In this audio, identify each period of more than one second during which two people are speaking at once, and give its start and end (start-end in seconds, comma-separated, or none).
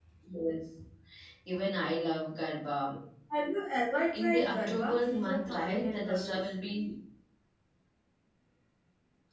4.1-6.4